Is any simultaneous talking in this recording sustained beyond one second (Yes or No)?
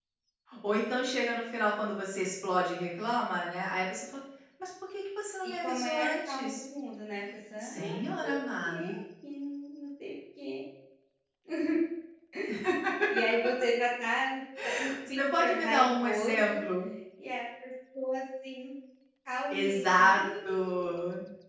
Yes